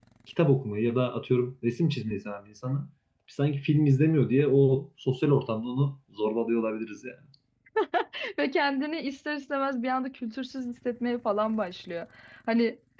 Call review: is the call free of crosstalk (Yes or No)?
Yes